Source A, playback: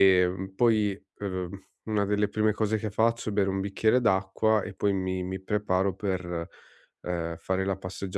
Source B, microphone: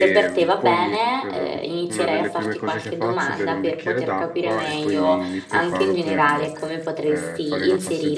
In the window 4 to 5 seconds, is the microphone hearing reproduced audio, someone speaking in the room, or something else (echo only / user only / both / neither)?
both